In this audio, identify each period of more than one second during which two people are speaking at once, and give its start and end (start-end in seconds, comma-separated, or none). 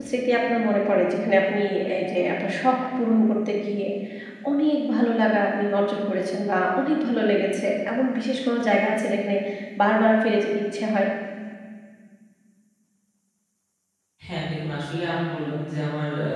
none